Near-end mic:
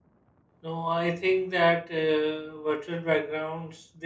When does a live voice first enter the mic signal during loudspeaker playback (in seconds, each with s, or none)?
0.6 s